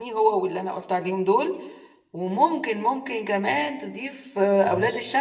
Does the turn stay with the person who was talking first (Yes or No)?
Yes